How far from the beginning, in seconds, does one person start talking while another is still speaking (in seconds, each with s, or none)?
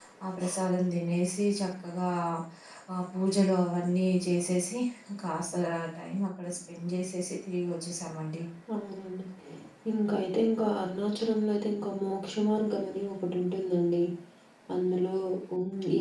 none